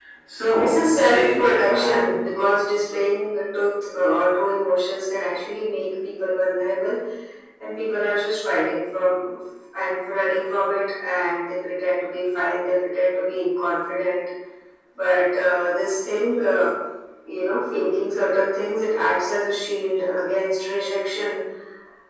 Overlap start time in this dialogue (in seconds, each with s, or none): 0.6 s